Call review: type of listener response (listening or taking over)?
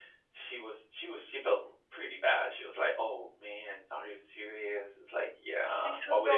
taking over